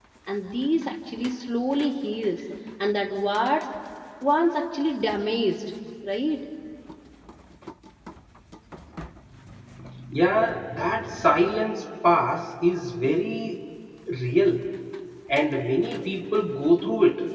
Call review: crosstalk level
none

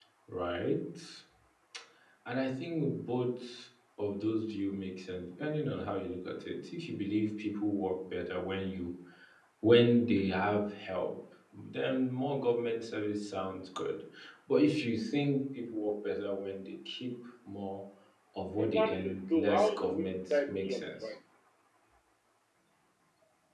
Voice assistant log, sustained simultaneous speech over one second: present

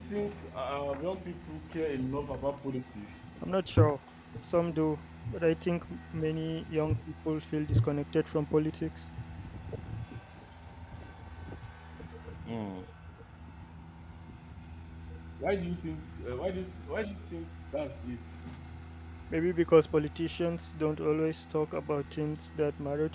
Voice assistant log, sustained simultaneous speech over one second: none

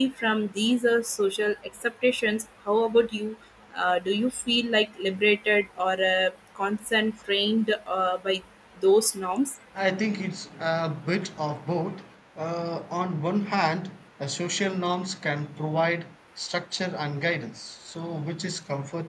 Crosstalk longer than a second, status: none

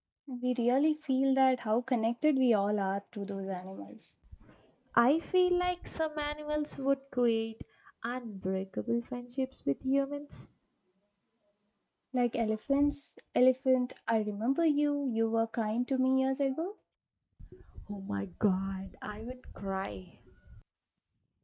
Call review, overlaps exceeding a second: none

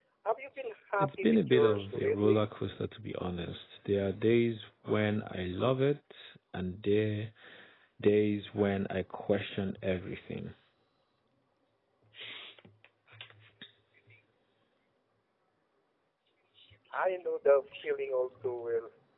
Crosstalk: present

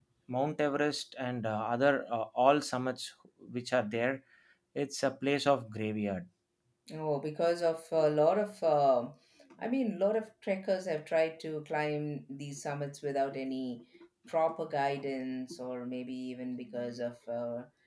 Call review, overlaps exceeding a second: none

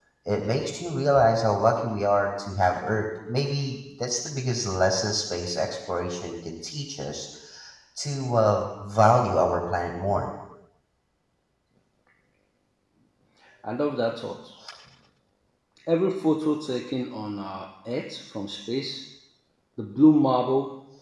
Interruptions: none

